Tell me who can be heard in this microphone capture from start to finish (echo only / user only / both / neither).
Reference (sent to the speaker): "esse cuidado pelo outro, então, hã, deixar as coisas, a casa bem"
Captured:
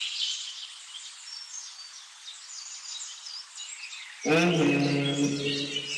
user only